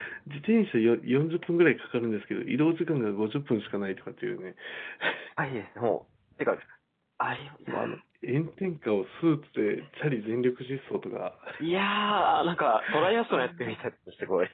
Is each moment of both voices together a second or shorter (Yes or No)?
Yes